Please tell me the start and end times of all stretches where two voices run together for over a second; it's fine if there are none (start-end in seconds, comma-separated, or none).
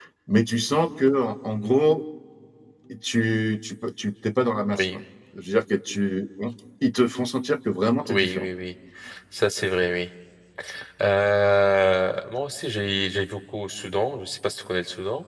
none